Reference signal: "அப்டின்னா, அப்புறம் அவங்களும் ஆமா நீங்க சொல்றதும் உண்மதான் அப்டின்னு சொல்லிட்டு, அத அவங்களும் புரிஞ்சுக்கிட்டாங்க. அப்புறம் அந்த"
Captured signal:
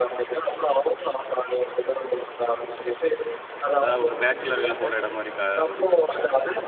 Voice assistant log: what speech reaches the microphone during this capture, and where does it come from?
both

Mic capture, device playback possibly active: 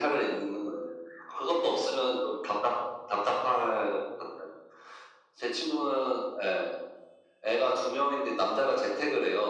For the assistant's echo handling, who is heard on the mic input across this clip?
echo only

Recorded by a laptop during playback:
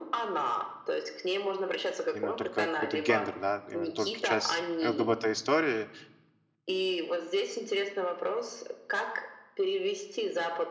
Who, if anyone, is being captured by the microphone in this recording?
both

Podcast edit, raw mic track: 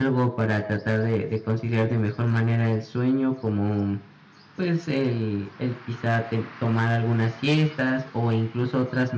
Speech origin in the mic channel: user only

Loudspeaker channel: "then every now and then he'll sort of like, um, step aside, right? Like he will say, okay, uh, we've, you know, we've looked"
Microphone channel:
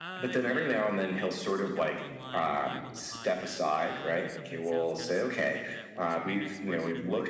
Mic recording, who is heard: both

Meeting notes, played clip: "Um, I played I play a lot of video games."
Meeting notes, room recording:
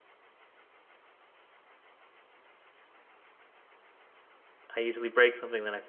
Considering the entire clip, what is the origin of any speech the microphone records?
user only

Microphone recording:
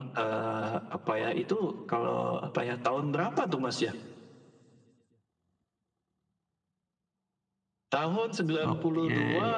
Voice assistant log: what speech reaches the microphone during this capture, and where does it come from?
both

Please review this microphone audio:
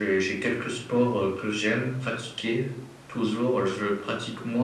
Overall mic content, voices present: echo only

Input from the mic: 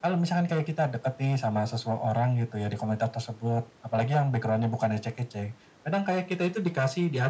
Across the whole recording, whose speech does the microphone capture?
echo only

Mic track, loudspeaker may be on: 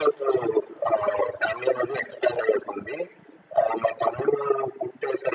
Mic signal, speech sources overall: echo only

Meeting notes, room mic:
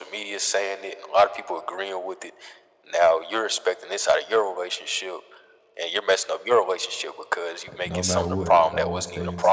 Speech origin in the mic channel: both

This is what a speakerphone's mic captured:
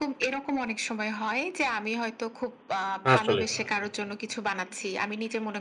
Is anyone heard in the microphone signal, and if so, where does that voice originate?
both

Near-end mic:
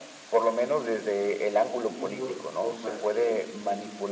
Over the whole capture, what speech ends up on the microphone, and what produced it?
both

